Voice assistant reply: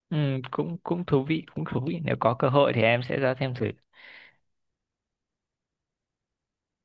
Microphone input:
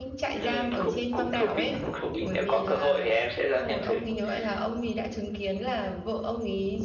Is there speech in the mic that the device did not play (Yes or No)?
Yes